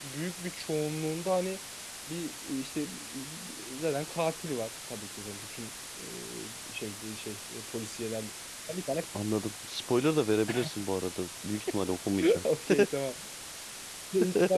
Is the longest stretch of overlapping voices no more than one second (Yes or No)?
Yes